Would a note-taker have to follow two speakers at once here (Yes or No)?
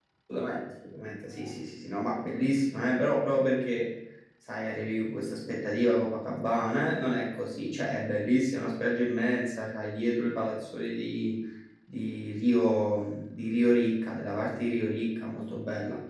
No